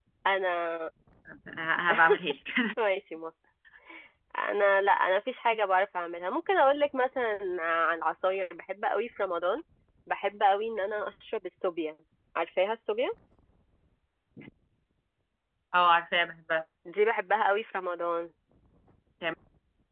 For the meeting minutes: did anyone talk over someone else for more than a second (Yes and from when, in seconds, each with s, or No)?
No